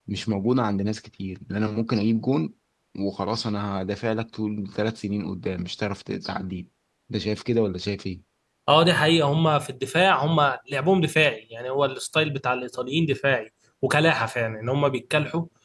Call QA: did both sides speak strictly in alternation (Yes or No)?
Yes